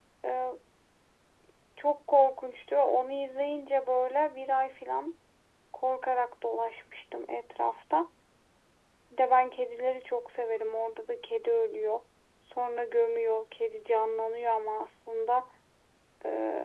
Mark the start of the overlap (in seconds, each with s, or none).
none